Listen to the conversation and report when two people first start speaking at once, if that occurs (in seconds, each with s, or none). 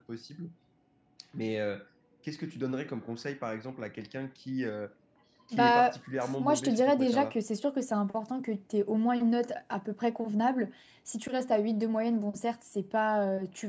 5.5 s